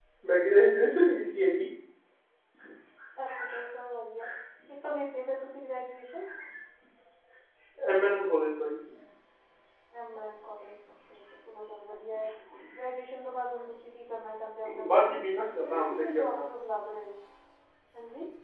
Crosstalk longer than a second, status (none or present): present